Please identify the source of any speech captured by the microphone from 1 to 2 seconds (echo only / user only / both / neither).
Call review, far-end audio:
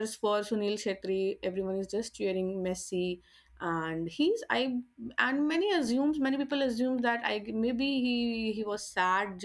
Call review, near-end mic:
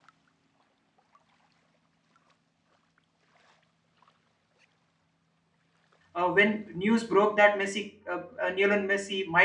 neither